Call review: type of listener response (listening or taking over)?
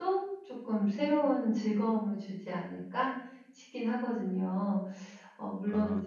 listening